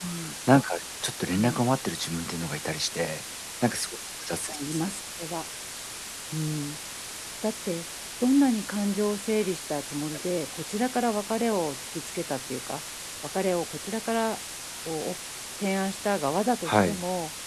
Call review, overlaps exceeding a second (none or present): none